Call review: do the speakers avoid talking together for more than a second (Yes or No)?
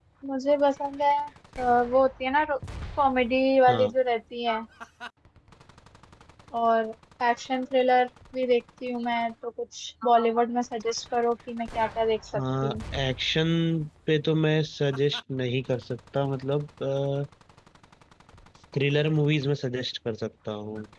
Yes